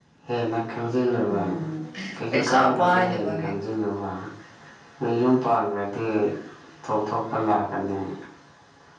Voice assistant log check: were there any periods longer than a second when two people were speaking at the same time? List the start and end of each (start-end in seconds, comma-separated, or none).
2.3-3.5